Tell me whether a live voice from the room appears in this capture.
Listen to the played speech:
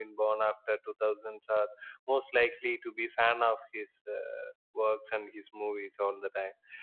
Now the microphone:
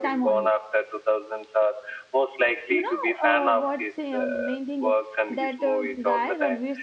Yes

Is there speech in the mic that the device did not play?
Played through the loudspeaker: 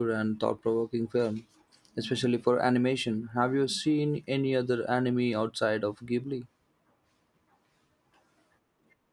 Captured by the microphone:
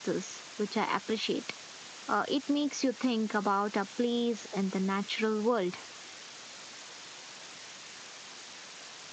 Yes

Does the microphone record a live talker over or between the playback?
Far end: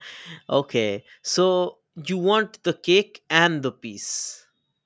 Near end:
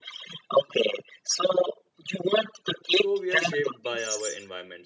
Yes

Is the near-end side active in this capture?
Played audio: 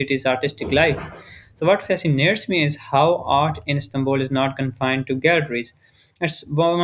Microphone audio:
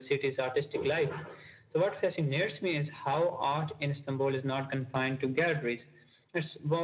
No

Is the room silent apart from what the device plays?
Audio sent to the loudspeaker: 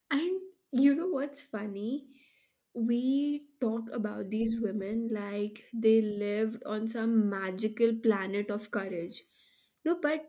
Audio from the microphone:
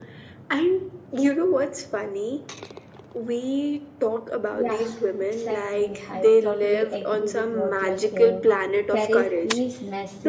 No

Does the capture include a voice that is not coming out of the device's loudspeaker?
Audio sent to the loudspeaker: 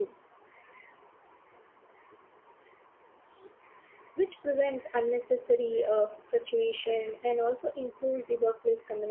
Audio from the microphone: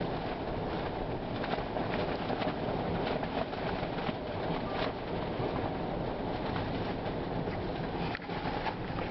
No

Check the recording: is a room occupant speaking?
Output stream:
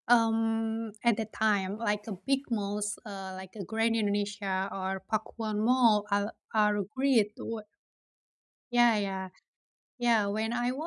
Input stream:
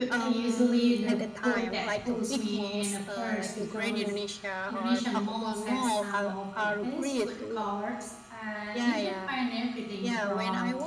Yes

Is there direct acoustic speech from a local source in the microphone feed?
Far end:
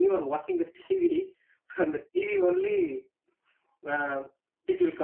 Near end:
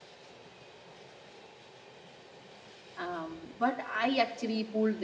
Yes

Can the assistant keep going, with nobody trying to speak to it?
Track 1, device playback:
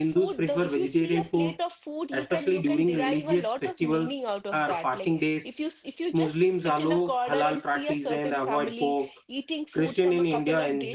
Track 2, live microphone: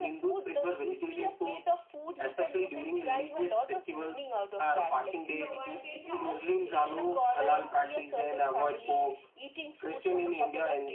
No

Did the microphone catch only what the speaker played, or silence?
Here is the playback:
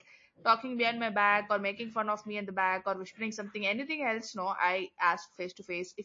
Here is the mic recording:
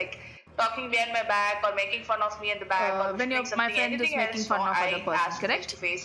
No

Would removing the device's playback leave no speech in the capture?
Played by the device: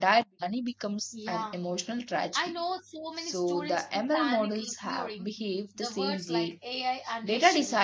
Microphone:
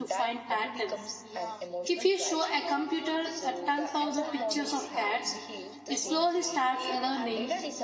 No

